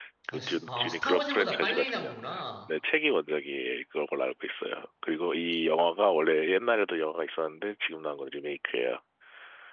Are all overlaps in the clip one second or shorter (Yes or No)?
No